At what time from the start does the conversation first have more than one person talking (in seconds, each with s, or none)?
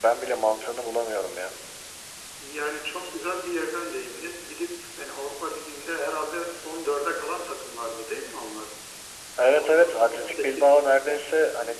9.4 s